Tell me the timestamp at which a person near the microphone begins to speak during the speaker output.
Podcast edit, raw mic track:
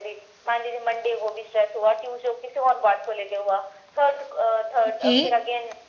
4.9 s

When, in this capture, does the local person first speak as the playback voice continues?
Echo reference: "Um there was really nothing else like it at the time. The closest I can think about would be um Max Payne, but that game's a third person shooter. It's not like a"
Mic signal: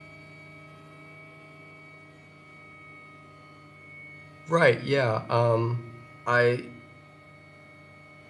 4.5 s

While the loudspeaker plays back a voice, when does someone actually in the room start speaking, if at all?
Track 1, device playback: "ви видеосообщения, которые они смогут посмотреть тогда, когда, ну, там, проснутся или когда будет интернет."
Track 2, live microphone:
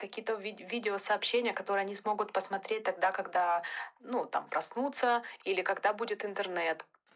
none

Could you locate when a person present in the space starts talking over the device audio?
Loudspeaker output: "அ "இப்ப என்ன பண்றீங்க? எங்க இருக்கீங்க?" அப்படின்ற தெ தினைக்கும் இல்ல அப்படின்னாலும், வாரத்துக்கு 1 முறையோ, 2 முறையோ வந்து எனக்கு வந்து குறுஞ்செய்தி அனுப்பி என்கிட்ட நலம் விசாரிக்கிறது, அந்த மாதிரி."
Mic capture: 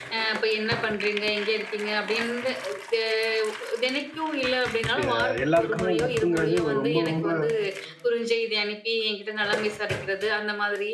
5.0 s

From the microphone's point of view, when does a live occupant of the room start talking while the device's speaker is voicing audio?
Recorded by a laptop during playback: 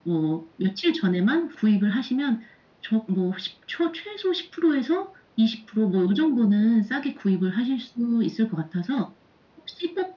none

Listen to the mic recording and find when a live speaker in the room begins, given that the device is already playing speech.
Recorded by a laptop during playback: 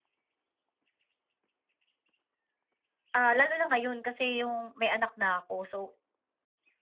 3.2 s

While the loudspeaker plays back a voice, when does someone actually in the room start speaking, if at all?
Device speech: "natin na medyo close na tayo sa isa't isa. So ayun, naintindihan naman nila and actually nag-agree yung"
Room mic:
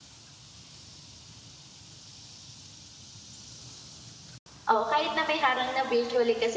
4.7 s

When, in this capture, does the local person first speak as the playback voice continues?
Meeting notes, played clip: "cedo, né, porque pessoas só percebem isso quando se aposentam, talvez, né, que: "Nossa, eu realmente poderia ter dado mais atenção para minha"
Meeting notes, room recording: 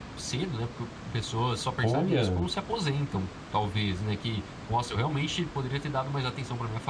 1.8 s

